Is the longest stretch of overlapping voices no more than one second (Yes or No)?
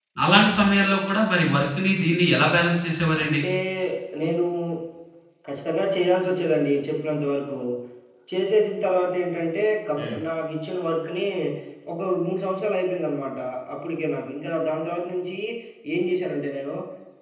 Yes